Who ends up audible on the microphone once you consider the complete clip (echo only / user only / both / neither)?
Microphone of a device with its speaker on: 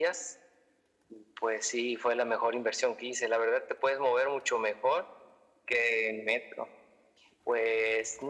echo only